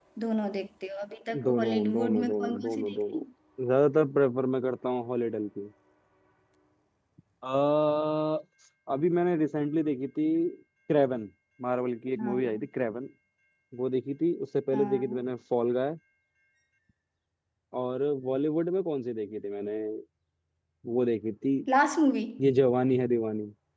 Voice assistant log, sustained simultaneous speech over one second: present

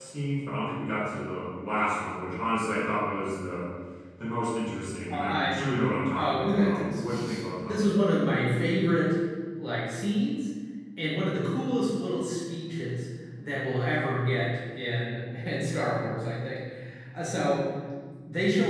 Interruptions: present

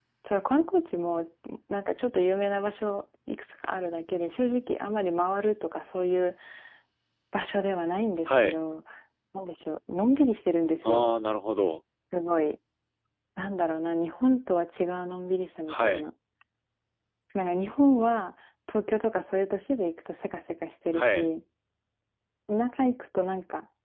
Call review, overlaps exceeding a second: none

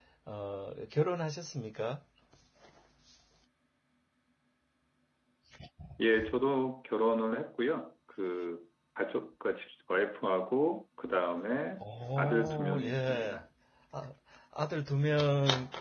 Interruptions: present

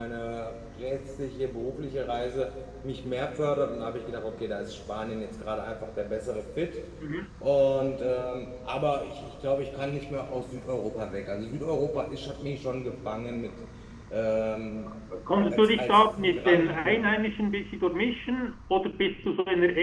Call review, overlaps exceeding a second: present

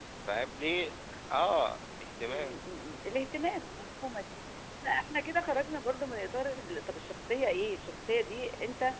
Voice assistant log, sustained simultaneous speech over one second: none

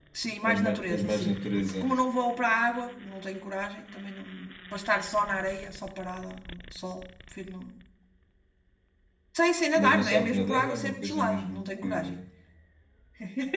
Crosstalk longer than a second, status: present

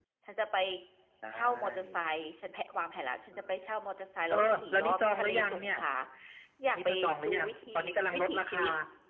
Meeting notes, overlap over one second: present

